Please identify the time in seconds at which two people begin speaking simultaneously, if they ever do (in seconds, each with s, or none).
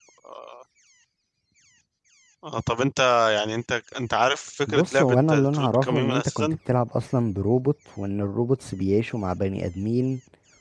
4.7 s